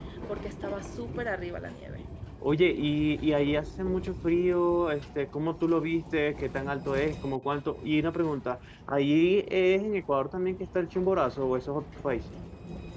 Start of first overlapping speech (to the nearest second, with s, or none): none